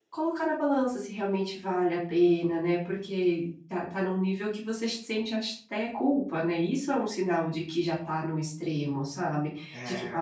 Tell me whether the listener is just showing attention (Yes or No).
Yes